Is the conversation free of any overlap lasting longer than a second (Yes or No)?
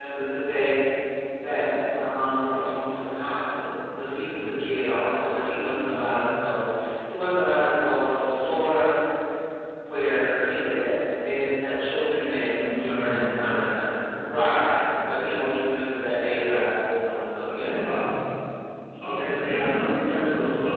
No